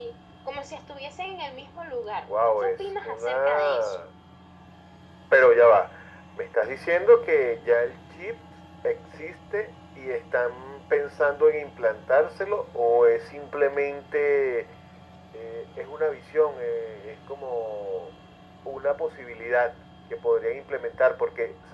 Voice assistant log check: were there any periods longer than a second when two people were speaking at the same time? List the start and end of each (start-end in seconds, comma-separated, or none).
2.3-4.0